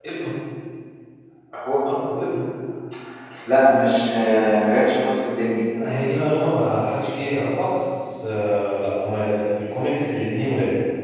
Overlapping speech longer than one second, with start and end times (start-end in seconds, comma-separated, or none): none